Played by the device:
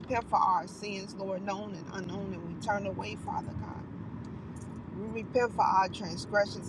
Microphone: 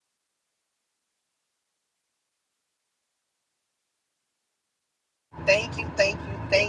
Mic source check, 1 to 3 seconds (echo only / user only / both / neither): neither